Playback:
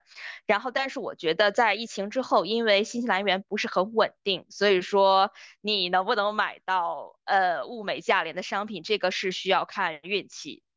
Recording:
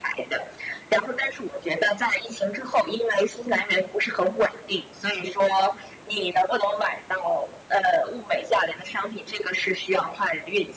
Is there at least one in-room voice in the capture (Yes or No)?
No